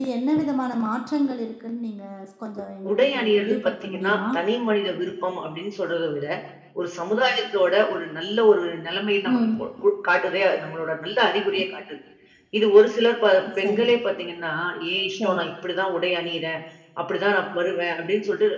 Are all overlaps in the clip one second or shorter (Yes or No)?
No